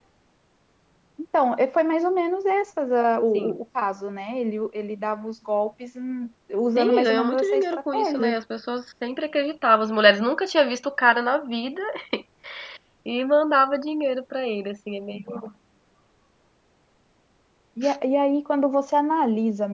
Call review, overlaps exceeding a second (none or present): present